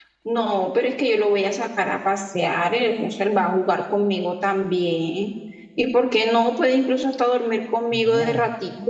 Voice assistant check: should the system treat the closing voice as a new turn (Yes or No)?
Yes